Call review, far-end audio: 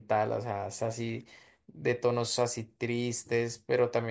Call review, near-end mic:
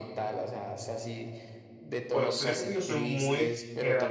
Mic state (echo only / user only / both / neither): both